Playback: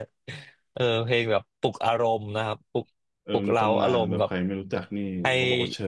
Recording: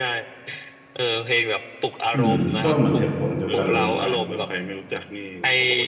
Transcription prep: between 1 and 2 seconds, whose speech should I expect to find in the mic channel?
echo only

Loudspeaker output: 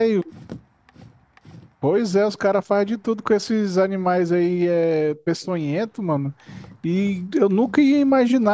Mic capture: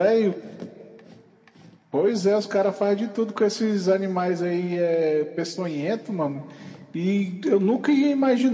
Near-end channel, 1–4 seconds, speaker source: echo only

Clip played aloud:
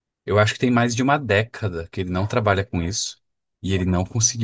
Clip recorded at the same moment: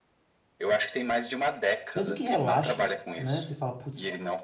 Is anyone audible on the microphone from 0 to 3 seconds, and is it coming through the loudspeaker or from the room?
both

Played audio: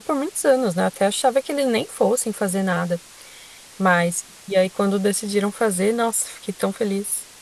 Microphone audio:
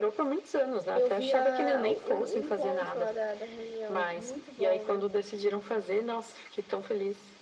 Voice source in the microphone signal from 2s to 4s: both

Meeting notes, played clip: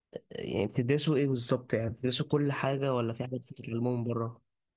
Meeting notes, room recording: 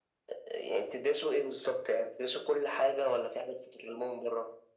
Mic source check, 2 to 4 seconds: echo only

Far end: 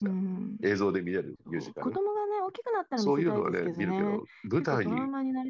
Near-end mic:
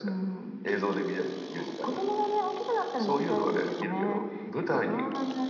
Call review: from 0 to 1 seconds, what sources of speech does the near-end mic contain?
echo only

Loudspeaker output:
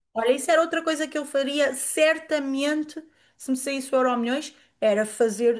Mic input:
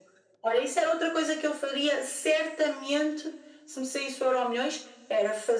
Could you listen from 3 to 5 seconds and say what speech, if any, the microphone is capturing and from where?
echo only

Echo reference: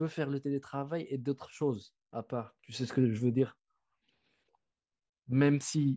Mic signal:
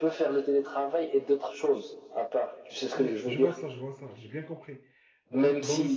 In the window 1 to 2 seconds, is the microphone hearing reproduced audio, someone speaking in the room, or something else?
echo only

